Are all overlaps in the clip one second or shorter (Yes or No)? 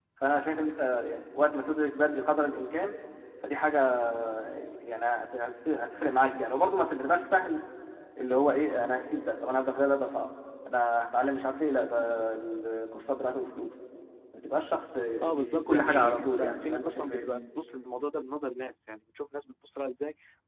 No